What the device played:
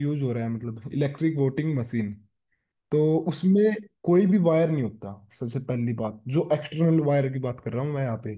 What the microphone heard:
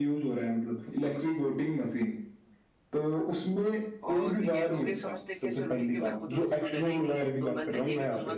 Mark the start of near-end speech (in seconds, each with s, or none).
4.1 s